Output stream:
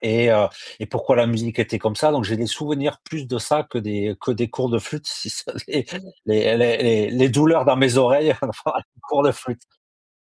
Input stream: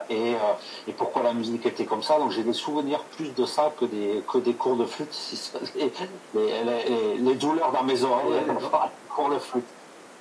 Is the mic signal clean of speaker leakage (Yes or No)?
No